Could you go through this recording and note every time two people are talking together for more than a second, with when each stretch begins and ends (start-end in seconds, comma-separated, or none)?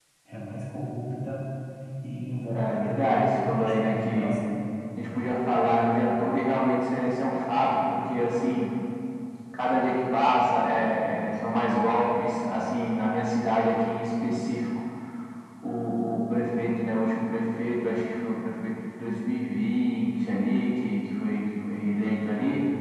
2.5-4.4